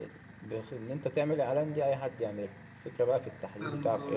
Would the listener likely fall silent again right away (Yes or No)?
Yes